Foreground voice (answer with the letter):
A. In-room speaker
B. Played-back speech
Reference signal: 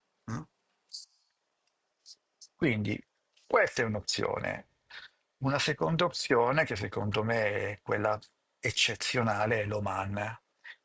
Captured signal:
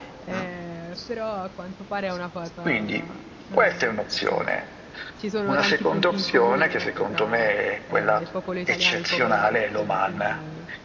B